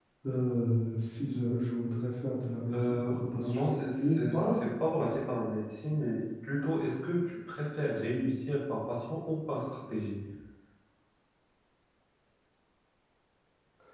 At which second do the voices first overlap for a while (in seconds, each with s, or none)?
2.7 s